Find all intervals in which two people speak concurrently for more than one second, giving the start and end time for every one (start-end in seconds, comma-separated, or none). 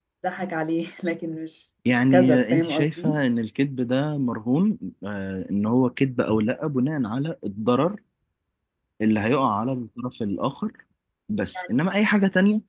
1.9-3.2